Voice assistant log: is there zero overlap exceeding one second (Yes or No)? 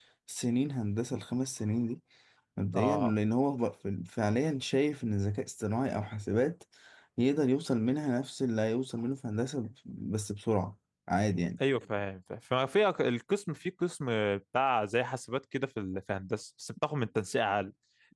Yes